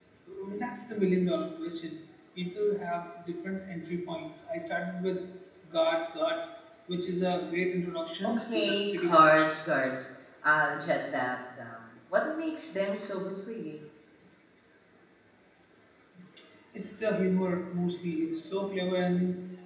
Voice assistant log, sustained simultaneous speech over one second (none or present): present